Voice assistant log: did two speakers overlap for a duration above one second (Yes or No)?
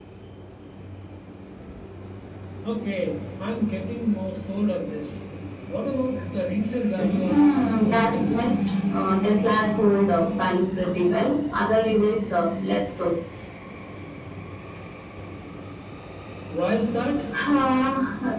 Yes